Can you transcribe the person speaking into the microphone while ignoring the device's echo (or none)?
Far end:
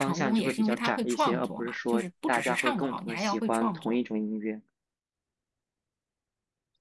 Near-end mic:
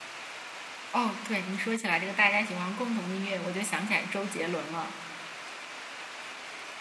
哦，对，你说起来这个大家喜欢共同的音乐，我就想起来周杰伦了，